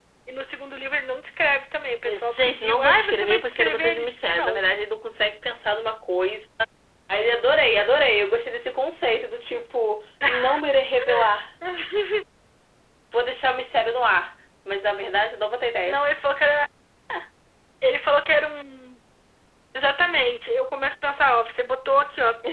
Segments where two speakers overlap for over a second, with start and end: 2.0-4.6

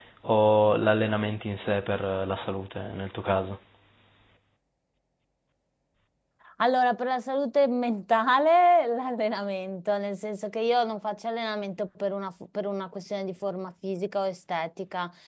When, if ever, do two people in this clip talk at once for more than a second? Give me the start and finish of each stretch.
none

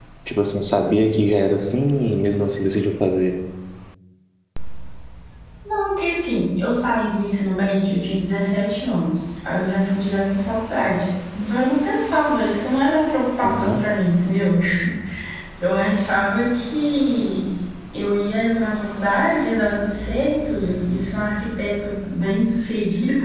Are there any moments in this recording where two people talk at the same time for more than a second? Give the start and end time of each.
none

